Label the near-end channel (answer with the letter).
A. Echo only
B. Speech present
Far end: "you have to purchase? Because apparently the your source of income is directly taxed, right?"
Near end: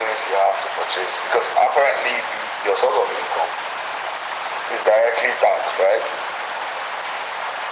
A